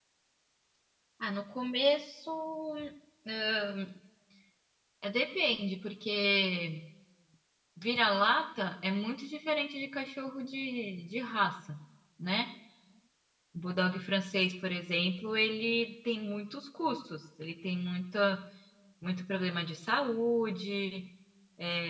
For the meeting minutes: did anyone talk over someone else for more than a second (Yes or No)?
No